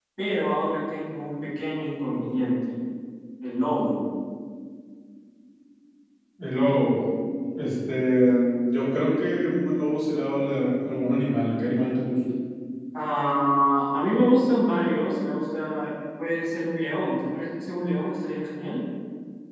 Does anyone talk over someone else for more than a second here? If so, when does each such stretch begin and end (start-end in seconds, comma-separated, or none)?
none